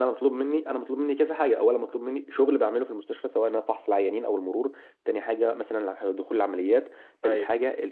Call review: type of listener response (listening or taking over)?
listening